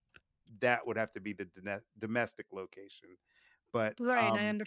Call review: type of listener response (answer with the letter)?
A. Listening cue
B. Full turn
B